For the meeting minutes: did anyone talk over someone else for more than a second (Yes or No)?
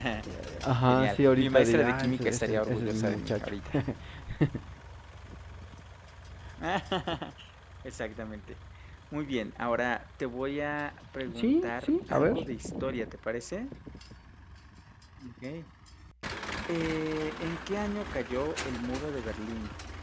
Yes